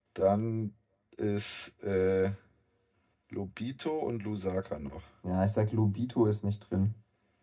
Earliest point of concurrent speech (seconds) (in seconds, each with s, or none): none